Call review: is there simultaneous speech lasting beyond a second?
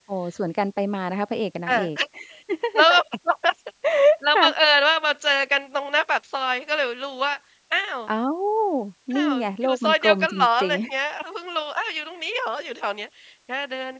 Yes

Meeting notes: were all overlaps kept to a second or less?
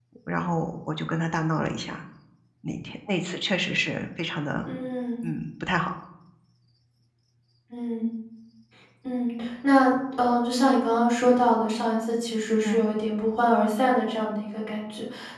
Yes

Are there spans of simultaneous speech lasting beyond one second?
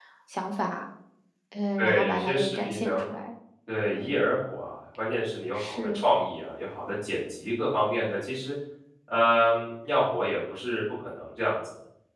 Yes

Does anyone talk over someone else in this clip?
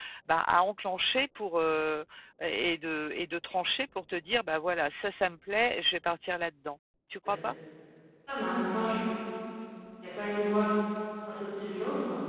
No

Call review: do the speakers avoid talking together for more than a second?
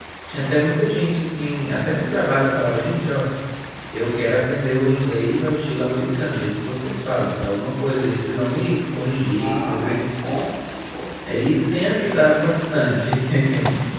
No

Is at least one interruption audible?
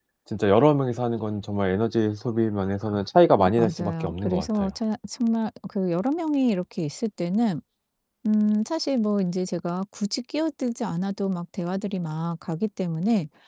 Yes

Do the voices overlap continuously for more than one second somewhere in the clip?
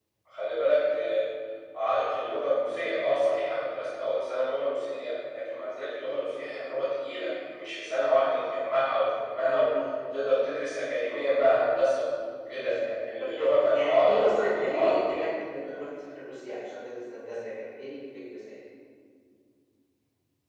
Yes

